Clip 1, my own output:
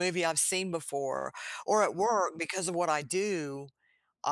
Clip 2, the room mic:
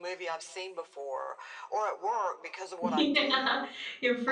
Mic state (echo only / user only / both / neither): both